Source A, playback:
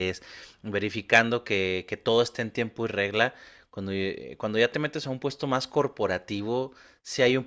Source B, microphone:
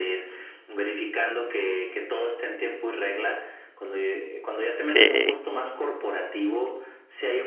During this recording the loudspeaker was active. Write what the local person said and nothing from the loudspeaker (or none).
Sí.